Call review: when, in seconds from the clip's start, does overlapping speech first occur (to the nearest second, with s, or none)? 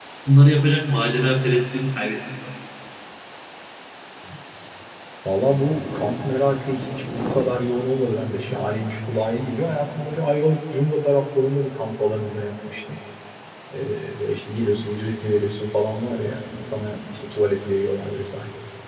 none